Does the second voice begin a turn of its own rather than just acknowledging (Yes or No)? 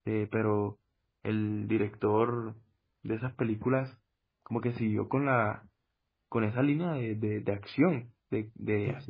No